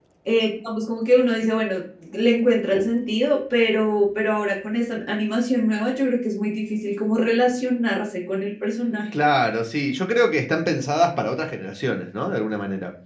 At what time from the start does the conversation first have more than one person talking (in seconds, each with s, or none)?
none